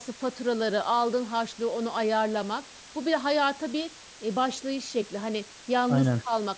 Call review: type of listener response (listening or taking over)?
listening